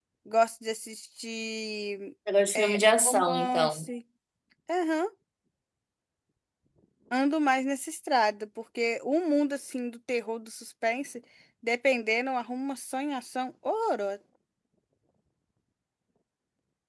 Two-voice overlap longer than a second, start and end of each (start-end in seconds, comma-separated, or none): 2.5-3.9